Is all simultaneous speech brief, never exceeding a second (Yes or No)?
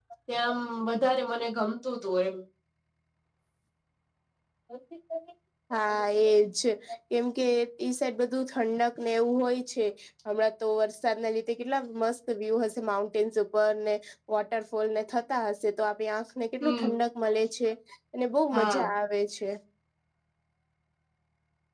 Yes